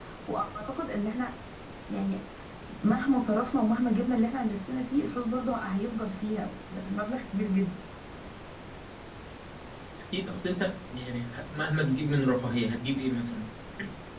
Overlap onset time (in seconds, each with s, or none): none